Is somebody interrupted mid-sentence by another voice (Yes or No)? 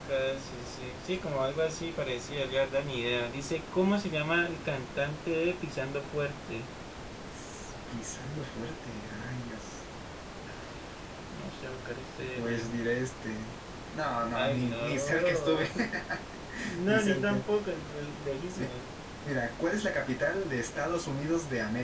Yes